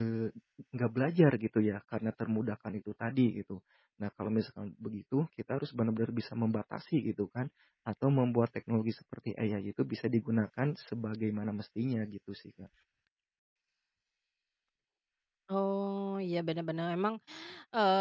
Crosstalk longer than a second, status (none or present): none